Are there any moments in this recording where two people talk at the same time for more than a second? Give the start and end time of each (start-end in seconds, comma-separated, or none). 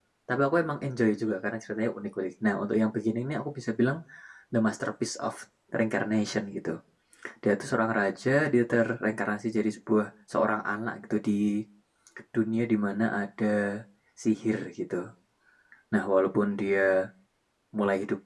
none